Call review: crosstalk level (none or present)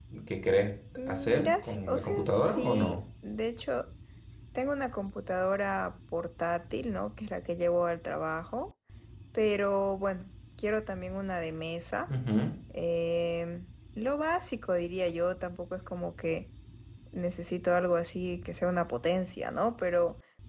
present